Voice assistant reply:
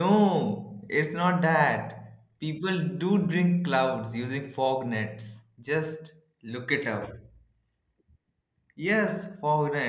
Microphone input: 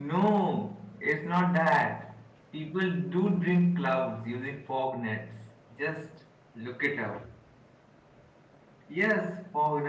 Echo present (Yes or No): Yes